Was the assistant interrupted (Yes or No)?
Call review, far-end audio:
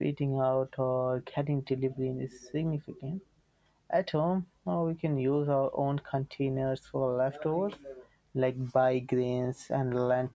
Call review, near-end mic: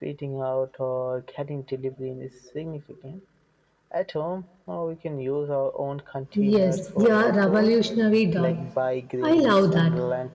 Yes